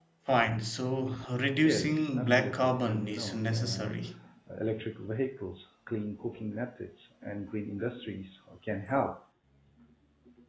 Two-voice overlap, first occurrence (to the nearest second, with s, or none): 2 s